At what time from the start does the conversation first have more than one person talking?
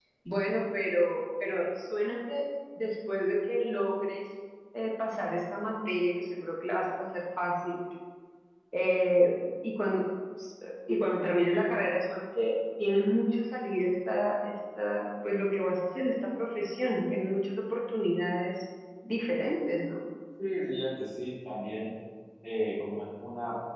none

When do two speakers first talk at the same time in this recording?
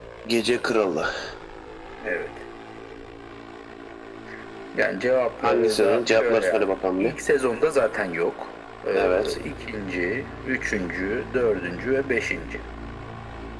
5.4 s

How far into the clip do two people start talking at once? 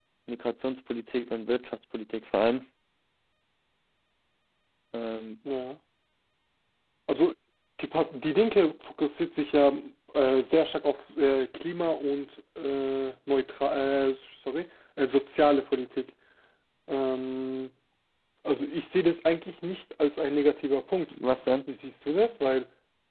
none

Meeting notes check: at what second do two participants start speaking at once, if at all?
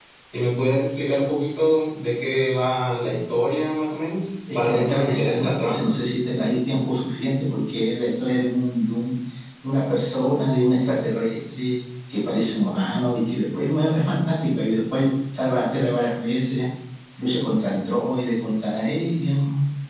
4.5 s

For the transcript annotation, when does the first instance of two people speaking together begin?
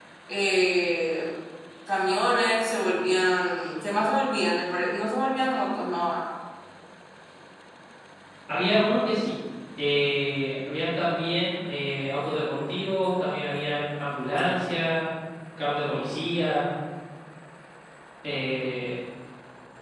none

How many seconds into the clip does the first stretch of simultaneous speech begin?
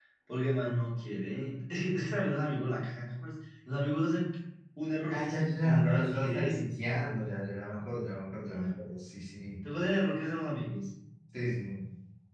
5.0 s

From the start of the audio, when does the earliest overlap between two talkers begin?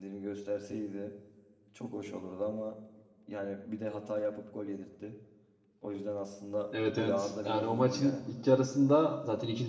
6.7 s

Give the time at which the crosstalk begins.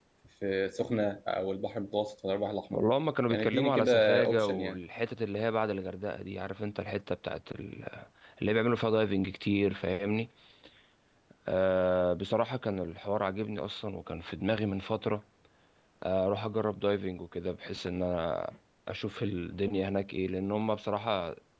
3.3 s

